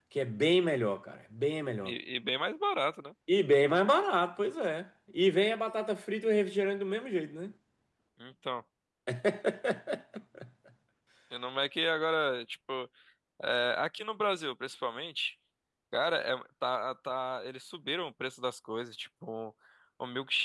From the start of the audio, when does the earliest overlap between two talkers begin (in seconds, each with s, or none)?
none